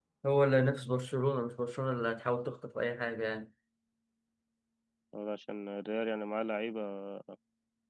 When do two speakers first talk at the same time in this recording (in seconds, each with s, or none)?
none